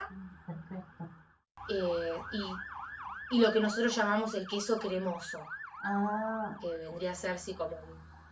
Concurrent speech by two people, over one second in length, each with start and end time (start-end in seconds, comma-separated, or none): none